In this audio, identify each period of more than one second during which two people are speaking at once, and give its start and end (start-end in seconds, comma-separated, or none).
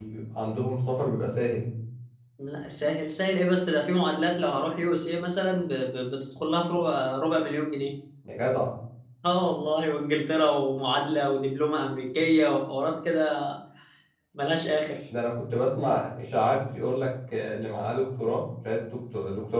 none